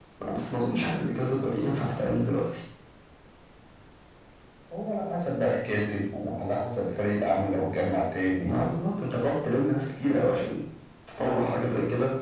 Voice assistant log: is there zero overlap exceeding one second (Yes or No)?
Yes